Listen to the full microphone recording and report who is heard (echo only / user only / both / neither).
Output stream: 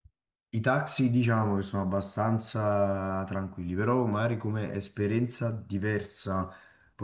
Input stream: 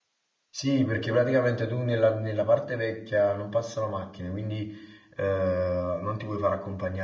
user only